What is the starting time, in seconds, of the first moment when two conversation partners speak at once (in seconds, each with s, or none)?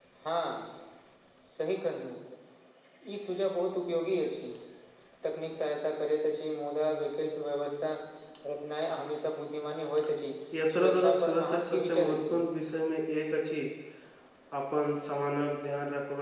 10.8 s